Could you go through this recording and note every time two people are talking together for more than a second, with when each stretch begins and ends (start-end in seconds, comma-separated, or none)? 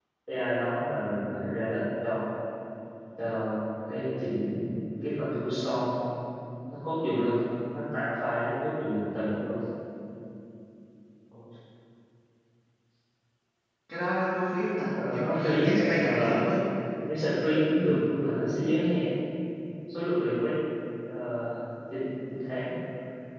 15.1-16.5